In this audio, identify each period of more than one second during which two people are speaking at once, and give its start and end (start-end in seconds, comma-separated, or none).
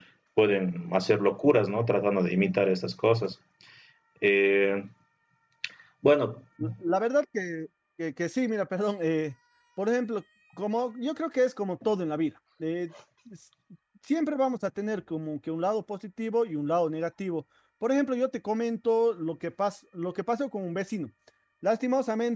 none